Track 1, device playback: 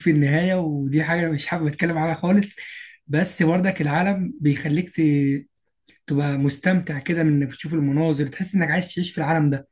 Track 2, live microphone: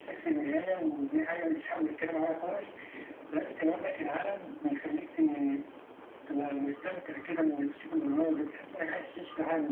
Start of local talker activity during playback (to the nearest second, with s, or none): none